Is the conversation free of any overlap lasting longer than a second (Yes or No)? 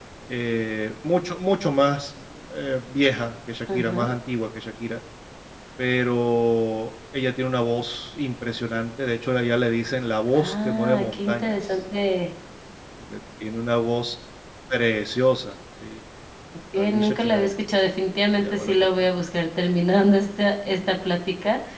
No